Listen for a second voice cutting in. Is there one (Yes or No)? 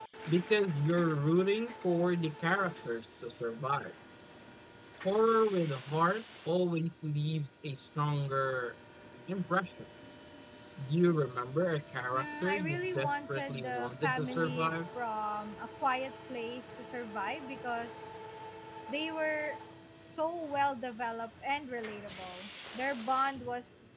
Yes